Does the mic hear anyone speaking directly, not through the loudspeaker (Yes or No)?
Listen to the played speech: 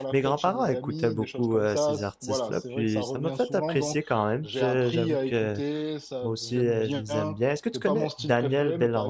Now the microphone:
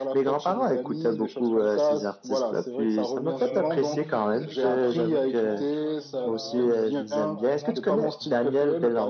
Yes